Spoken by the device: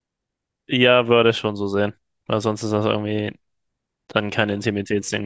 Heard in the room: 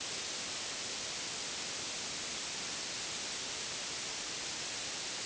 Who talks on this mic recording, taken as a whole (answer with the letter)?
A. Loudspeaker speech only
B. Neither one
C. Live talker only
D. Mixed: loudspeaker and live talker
B